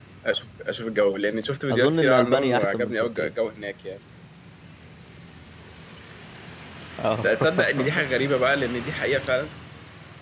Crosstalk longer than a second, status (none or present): present